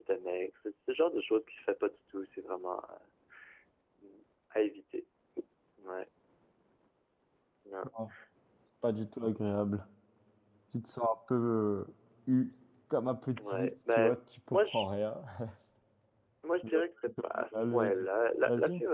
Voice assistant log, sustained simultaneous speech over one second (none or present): present